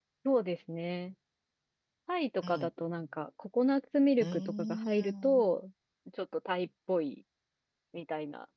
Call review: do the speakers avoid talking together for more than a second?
No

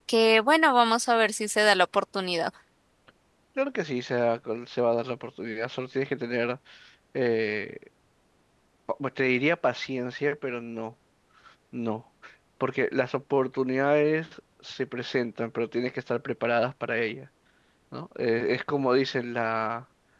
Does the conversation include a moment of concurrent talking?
No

